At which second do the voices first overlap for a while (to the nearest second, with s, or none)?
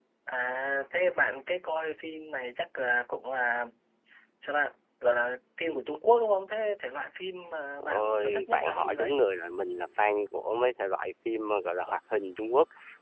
8 s